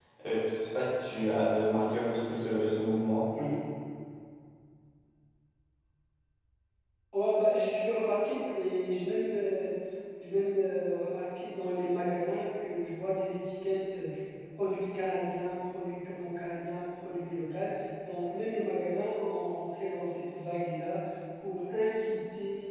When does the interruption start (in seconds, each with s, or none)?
none